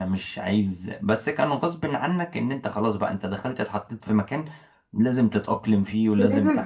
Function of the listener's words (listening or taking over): taking over